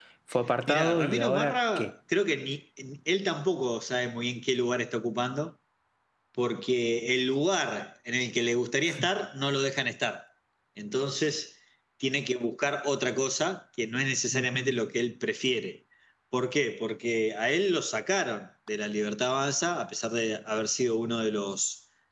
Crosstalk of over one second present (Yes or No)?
Yes